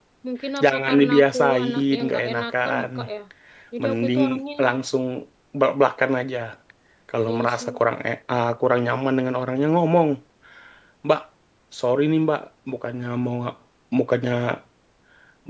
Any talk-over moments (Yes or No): Yes